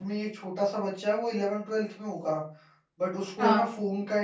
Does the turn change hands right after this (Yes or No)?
No